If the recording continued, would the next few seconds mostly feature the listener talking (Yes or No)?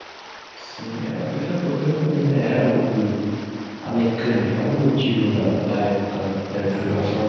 No